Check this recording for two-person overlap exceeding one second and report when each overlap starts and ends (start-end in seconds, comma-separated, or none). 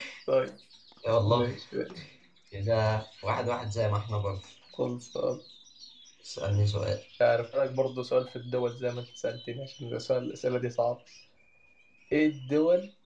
none